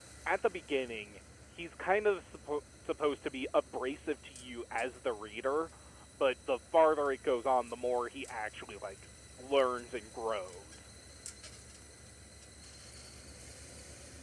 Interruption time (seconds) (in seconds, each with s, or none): none